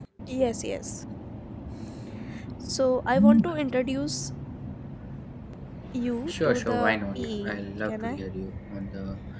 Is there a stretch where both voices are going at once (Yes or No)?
Yes